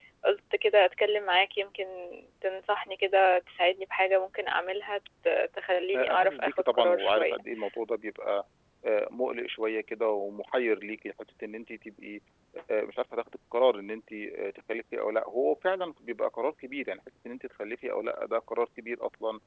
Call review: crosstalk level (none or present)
present